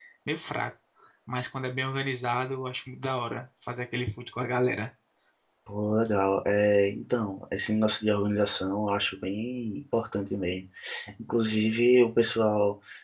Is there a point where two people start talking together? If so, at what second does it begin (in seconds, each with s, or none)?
none